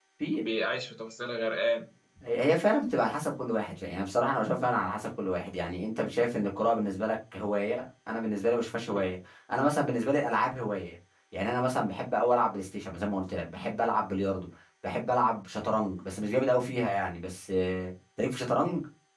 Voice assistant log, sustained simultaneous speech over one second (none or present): none